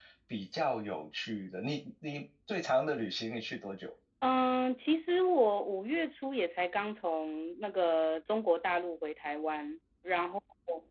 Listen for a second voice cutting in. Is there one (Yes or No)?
No